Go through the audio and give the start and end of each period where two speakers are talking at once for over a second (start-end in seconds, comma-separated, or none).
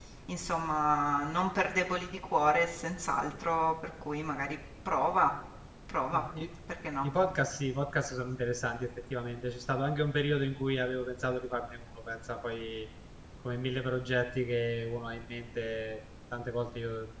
none